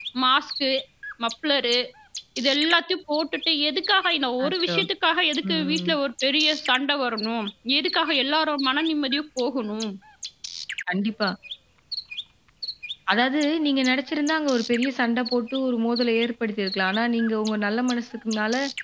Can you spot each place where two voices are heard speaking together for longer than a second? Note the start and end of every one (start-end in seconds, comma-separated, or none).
none